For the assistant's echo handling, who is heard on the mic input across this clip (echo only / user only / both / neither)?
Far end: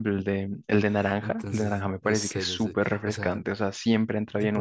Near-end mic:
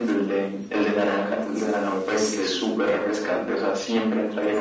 echo only